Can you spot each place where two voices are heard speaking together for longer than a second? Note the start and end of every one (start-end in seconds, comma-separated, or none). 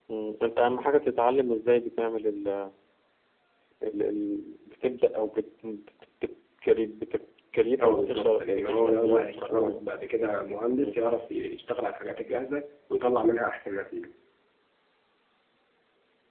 7.8-9.8